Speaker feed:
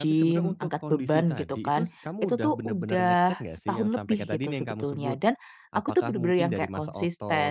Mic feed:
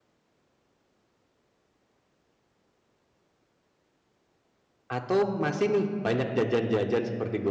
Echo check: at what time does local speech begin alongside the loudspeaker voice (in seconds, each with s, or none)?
4.9 s